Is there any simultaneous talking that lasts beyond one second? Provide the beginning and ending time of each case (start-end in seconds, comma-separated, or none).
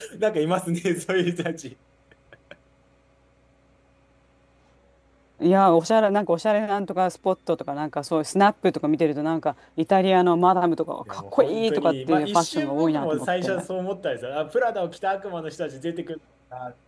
11.1-13.5